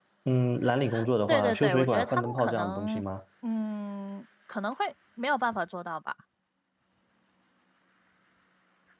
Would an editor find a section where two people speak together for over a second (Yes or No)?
Yes